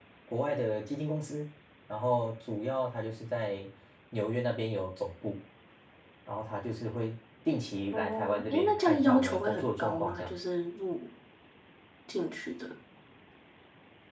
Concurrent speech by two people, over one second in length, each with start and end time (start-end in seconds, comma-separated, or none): 7.9-10.4